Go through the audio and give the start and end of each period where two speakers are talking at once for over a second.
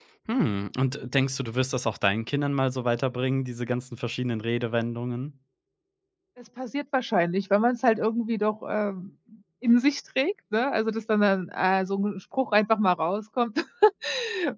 none

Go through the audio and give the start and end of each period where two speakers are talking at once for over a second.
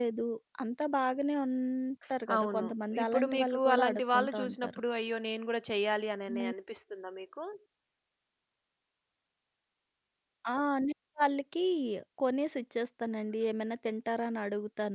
3.0-4.8

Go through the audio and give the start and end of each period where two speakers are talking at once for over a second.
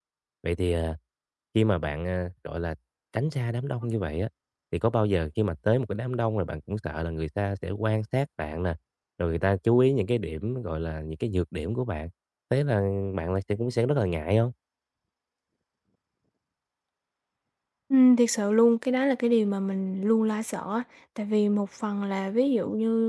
none

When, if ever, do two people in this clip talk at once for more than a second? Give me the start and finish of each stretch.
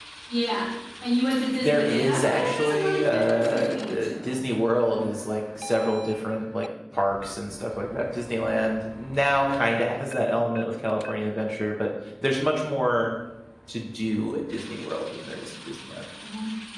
1.6-4.3

